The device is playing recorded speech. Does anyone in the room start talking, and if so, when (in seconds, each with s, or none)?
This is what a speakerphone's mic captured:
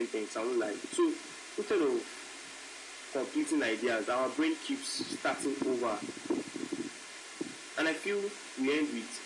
none